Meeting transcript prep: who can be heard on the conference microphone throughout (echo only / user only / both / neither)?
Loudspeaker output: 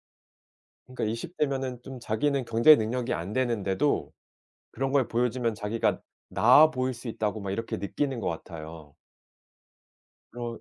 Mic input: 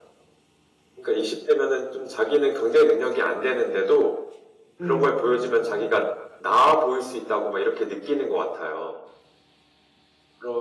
both